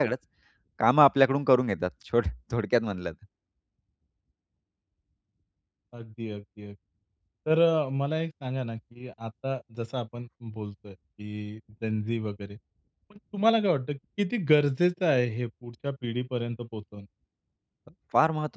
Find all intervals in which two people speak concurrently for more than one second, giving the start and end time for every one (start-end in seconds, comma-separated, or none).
none